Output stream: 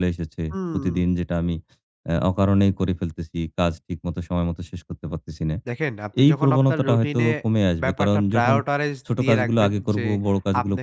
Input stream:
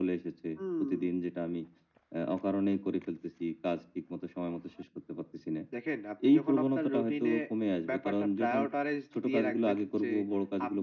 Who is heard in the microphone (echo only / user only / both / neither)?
echo only